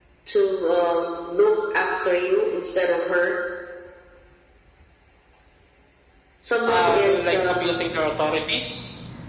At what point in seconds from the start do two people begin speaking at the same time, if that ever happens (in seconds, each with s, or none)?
6.7 s